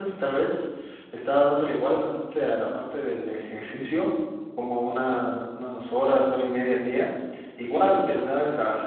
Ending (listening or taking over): listening